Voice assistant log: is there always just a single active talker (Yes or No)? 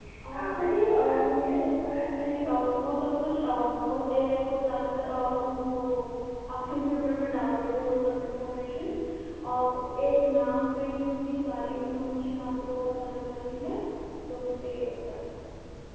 No